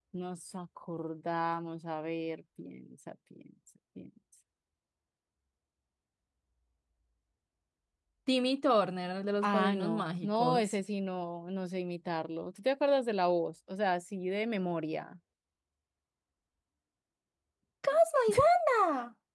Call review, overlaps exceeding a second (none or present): present